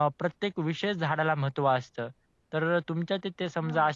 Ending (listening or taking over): listening